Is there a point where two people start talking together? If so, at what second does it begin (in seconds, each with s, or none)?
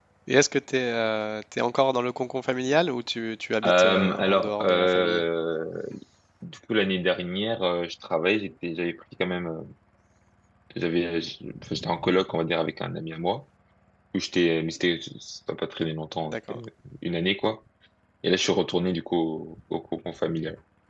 3.6 s